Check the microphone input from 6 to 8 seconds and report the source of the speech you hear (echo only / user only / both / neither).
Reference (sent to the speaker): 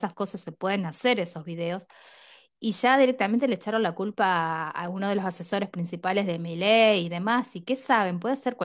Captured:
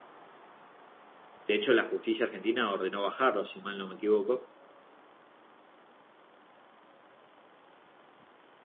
neither